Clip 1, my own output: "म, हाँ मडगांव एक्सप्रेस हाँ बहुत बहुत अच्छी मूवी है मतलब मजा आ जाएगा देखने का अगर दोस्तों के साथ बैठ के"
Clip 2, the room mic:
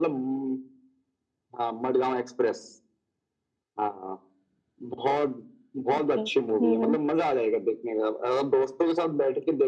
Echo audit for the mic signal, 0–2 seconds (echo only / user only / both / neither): echo only